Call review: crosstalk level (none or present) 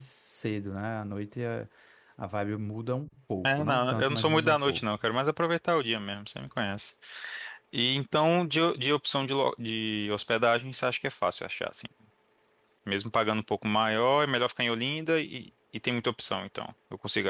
present